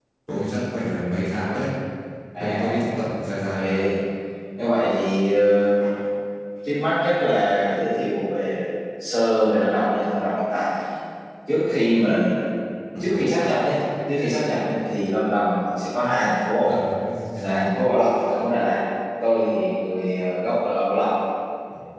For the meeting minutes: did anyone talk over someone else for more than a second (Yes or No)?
No